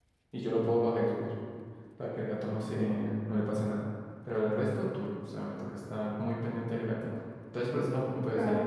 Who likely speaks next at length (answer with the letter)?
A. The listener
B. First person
A